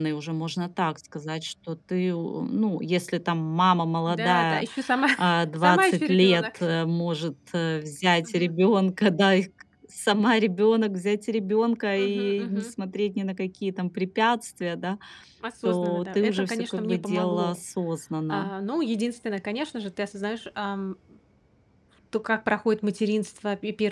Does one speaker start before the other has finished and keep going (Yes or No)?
Yes